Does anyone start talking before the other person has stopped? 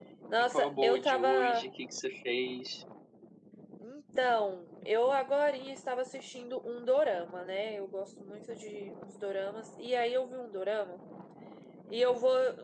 Yes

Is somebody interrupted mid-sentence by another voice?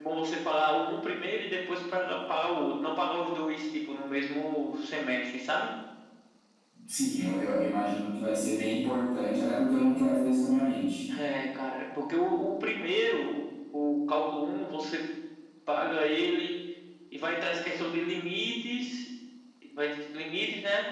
No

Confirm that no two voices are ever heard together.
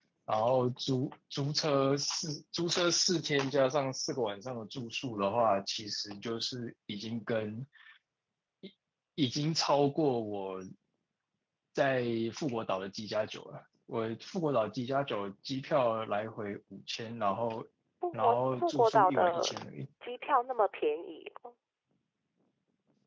No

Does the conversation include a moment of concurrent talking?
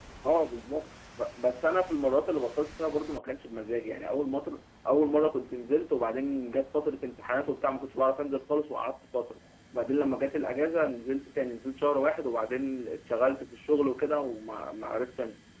No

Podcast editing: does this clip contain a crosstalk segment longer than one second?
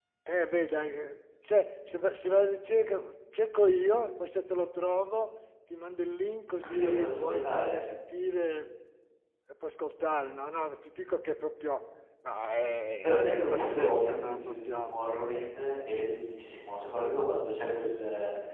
Yes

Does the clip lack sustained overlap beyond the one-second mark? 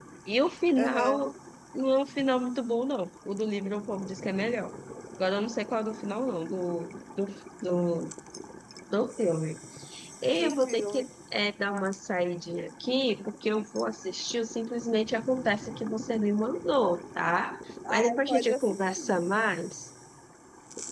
No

